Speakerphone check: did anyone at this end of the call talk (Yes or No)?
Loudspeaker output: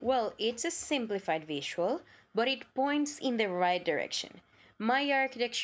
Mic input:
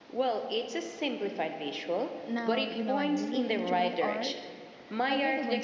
Yes